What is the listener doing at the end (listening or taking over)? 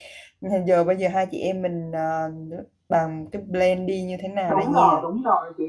taking over